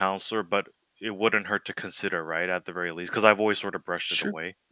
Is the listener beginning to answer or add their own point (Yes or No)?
Yes